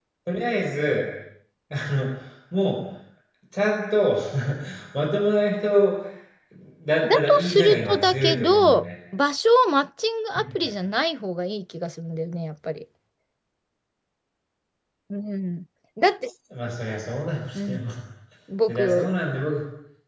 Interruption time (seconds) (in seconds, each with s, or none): 7.1 s